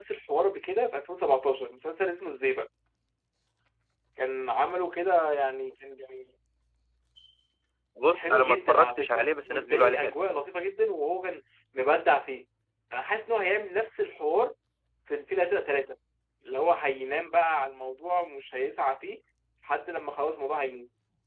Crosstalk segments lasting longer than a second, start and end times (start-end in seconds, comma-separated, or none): 8.1-10.2